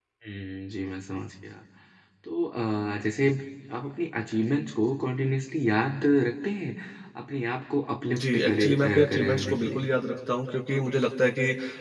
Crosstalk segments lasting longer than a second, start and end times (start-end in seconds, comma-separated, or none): 8.1-9.8